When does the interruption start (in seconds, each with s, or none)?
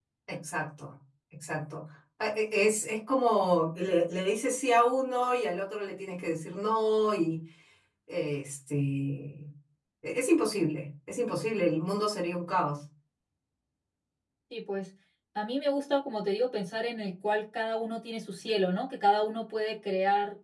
none